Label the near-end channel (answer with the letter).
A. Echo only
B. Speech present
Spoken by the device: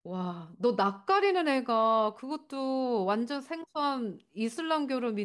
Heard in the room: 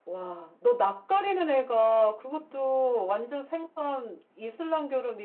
A